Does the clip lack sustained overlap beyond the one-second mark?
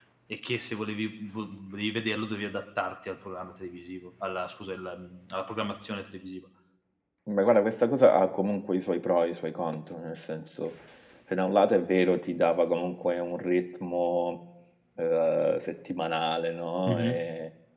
Yes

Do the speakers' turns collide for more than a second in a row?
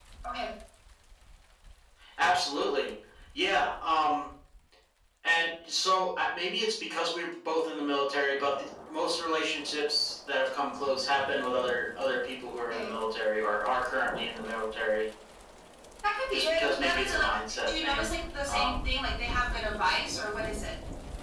Yes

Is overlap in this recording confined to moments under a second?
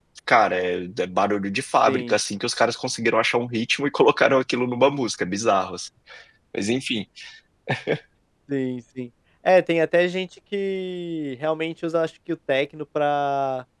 Yes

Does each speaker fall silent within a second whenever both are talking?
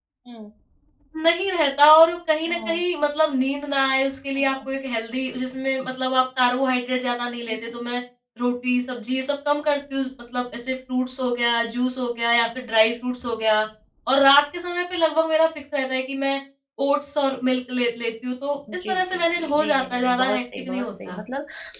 No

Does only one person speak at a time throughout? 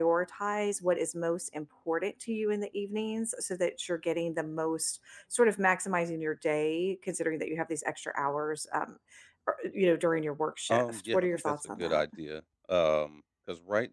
No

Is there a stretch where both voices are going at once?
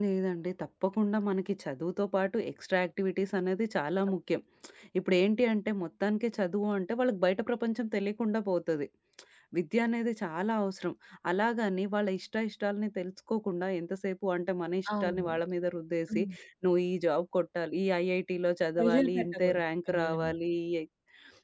Yes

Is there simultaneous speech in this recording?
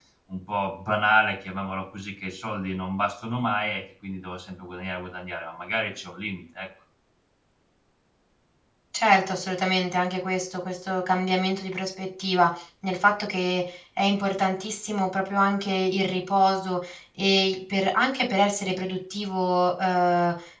No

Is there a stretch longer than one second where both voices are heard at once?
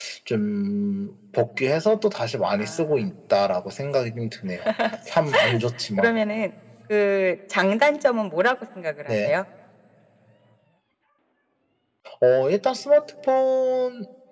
No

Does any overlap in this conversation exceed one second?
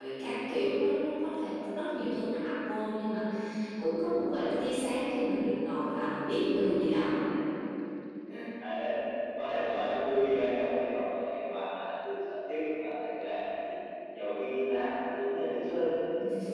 No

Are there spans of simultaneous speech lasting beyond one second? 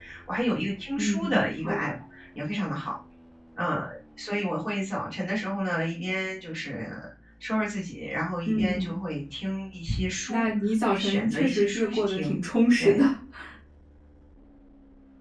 Yes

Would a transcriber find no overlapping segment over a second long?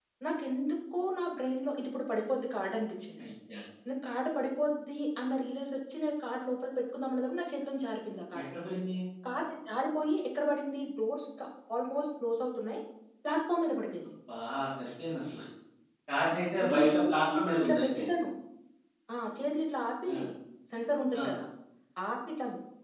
No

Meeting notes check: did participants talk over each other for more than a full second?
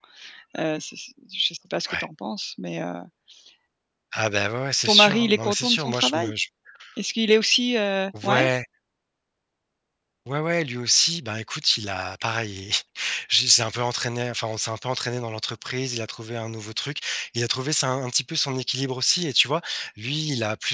Yes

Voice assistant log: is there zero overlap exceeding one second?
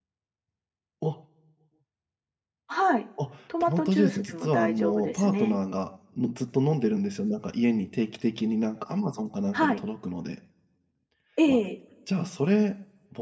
No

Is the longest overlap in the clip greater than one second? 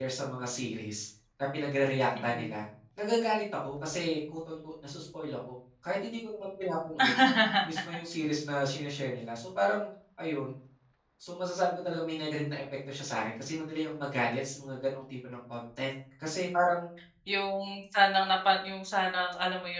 No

